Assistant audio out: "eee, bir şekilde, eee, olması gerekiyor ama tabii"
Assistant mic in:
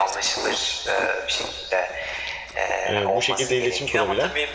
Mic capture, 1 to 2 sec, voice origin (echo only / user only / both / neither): echo only